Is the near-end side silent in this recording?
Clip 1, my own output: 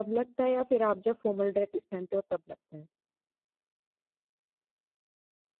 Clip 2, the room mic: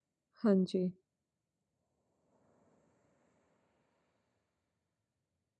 No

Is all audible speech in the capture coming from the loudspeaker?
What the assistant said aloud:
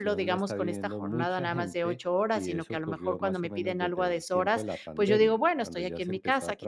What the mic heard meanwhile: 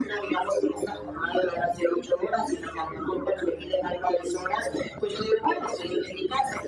Yes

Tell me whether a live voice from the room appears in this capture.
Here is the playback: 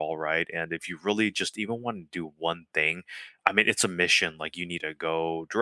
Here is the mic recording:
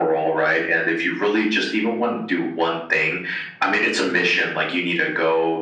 No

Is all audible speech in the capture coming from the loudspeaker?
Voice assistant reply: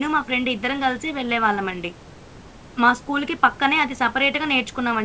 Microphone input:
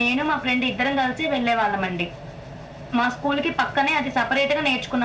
Yes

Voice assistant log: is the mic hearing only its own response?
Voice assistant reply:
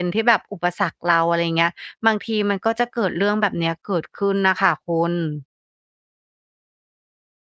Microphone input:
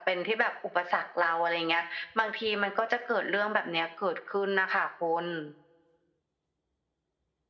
Yes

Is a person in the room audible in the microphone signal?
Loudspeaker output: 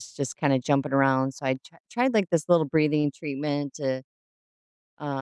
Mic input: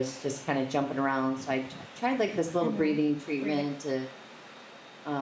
Yes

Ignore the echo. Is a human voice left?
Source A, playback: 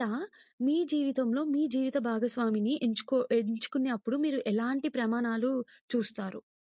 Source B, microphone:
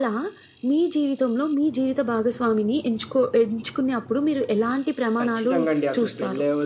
Yes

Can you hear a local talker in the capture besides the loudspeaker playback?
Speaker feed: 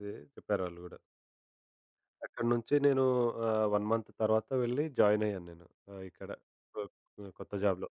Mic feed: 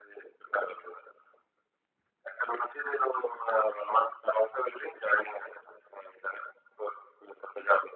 No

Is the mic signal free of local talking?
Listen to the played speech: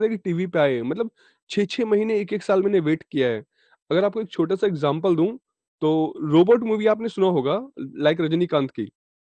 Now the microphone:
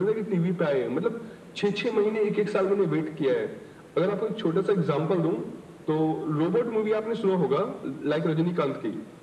Yes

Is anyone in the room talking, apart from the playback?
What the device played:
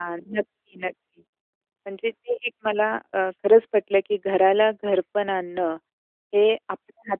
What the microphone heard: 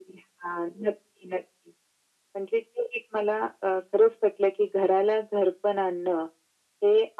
No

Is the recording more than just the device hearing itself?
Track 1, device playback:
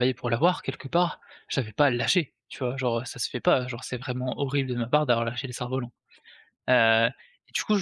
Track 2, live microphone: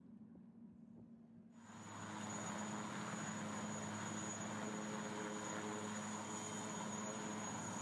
No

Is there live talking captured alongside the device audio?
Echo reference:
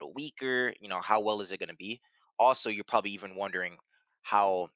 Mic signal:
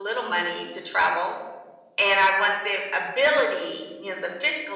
Yes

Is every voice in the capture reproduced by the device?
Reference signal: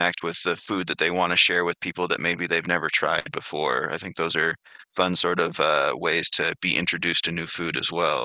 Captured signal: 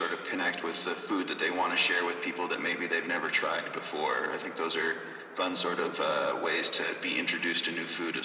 Yes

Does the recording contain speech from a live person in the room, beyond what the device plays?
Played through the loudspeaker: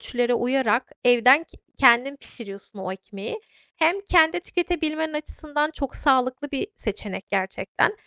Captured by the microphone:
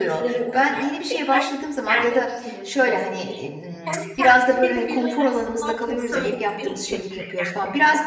Yes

